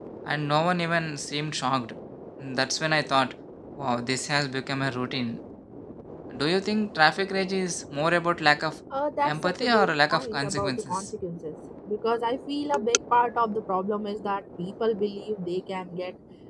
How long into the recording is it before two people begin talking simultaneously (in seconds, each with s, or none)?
9.2 s